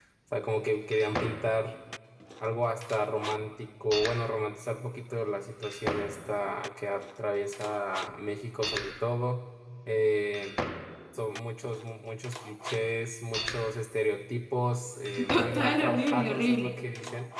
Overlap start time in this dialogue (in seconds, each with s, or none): 15.2 s